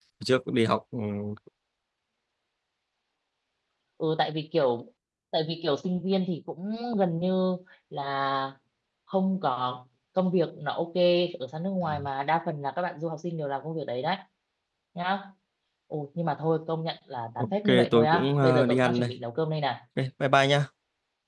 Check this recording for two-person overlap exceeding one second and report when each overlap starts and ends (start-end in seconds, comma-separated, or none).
17.4-19.1